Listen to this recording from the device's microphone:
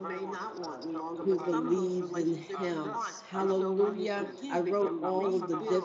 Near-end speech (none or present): present